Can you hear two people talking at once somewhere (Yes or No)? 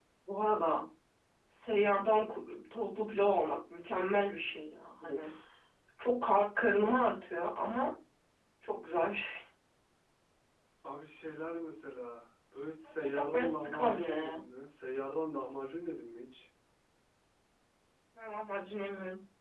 Yes